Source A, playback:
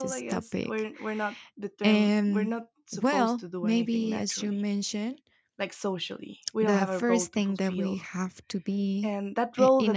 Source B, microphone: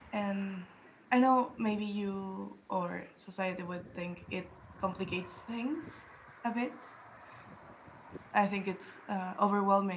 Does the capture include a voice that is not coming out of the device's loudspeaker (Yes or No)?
Yes